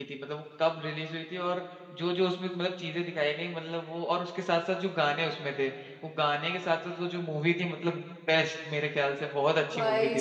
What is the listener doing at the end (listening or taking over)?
taking over